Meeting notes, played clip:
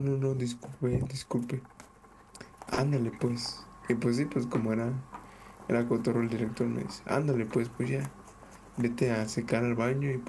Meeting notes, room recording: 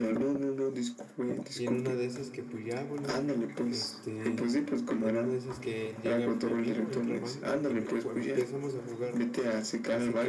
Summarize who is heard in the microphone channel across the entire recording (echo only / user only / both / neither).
both